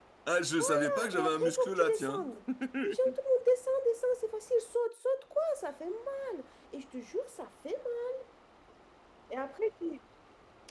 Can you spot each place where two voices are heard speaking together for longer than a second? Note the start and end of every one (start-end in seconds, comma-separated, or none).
0.6-2.3